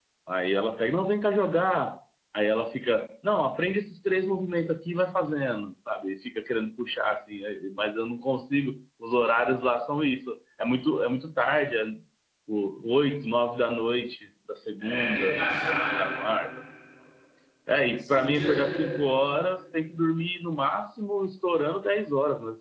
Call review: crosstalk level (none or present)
present